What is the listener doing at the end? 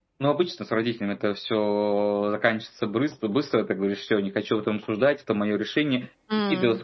listening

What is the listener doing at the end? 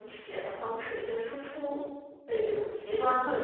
taking over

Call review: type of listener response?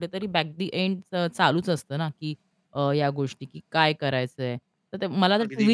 listening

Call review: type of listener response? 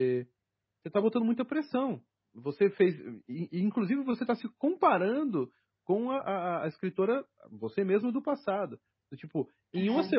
listening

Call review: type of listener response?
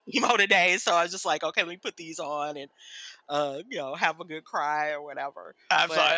taking over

